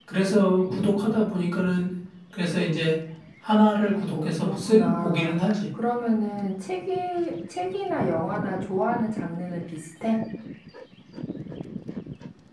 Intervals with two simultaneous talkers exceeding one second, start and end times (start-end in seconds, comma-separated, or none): 4.1-5.6